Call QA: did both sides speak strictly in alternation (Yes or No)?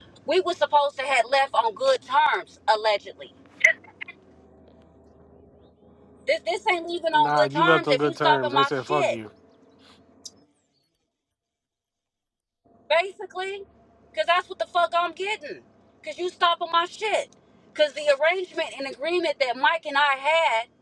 No